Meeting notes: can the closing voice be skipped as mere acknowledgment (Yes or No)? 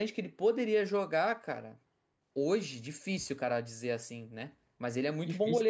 Yes